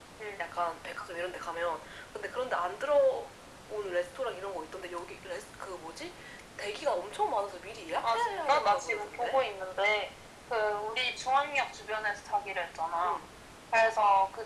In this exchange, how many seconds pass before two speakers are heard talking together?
8 s

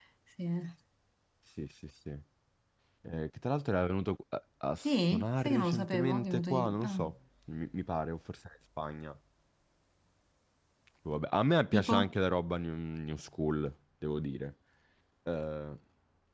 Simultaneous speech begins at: 5 s

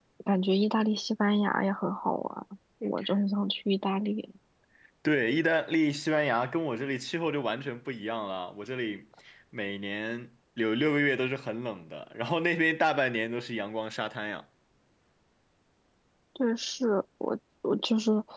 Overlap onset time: none

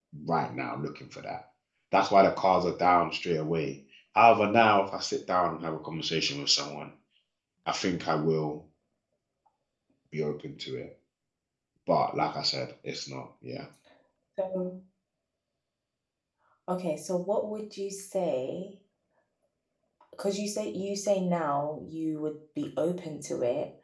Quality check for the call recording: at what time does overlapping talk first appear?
none

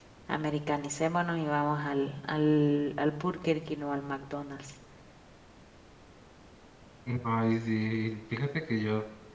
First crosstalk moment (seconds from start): none

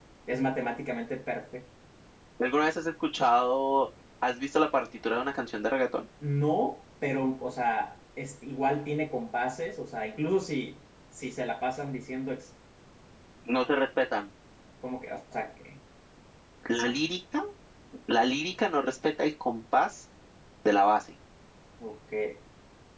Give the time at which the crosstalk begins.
none

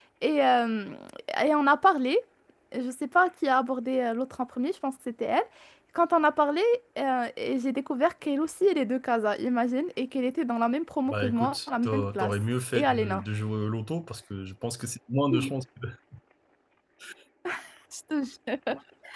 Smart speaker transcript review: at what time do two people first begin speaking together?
11 s

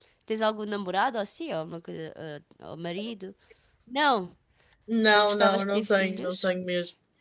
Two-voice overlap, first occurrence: 5 s

